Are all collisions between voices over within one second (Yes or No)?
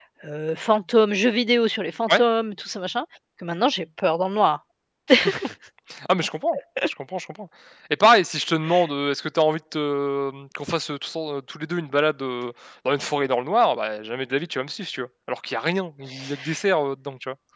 Yes